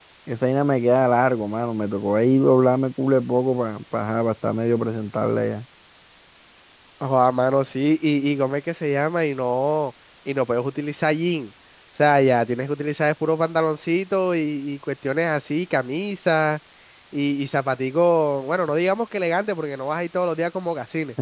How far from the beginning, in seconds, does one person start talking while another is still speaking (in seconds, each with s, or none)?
none